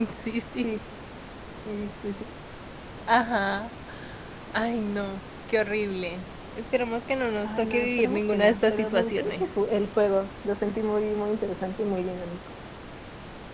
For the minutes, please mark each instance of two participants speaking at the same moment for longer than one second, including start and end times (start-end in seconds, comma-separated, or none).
7.4-9.5